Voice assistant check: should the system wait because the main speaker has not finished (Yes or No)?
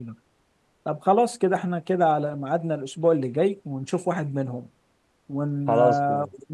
Yes